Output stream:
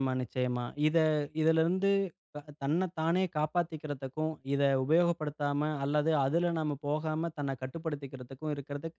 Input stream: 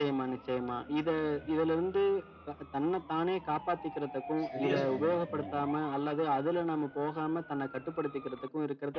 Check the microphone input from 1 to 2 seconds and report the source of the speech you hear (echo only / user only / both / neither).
echo only